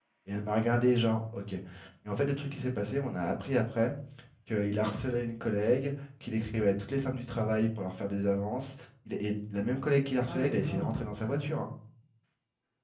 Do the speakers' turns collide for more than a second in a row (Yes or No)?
Yes